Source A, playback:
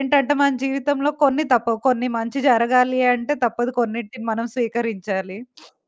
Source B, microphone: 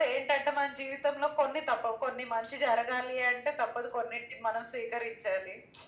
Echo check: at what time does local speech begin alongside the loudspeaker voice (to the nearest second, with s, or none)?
none